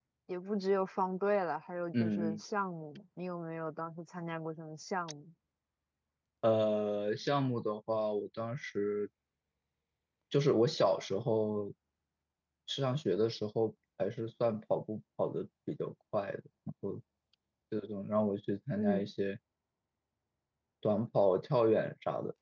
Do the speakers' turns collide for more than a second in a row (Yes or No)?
No